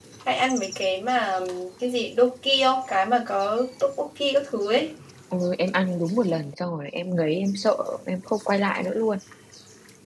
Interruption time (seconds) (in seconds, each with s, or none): none